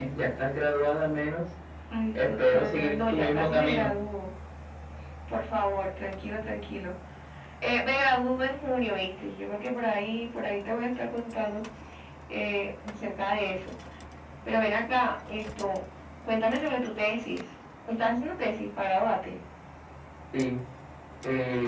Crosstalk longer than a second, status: present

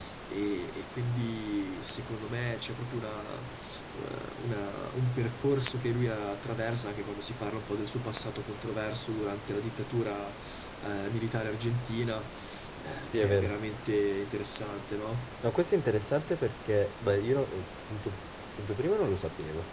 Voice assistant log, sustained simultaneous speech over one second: none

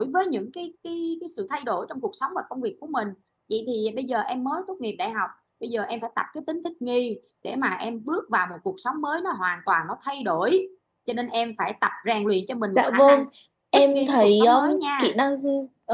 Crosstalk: present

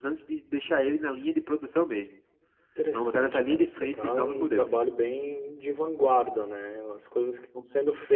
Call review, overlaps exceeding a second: present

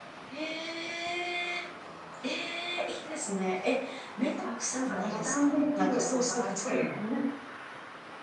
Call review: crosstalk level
present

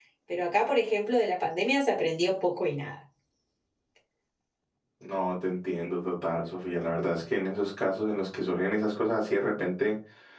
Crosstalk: none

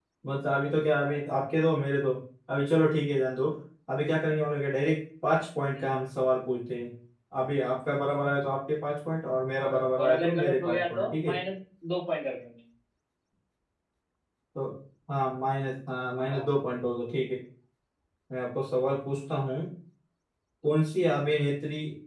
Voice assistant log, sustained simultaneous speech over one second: present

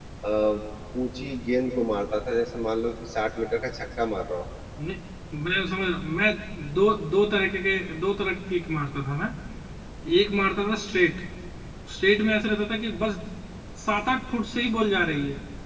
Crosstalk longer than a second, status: none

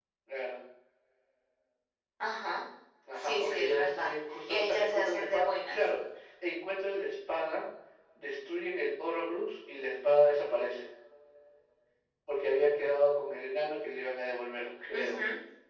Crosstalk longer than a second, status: present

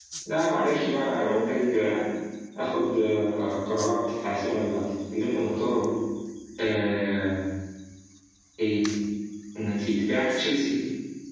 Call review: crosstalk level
present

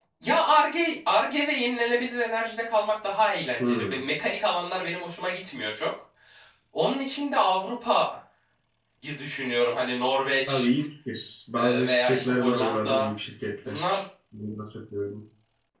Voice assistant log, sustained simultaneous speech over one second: present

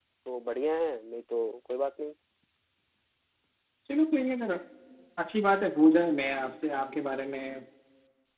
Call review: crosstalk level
none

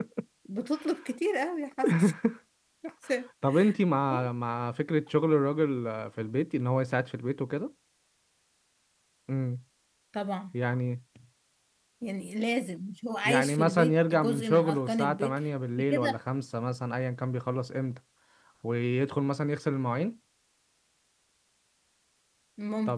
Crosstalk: present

